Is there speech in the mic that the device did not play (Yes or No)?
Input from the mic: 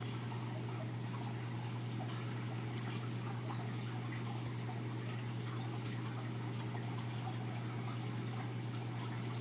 No